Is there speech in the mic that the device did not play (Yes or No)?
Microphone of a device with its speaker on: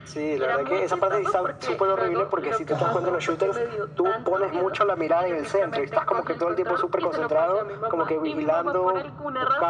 Yes